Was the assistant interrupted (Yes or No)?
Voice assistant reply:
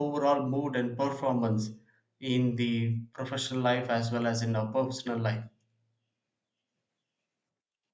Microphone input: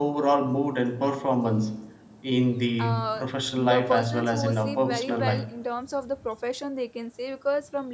Yes